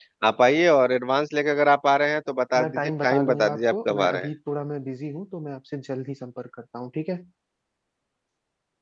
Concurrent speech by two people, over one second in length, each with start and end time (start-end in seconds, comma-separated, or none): 2.6-4.3